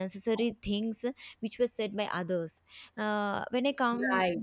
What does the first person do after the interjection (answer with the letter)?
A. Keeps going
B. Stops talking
A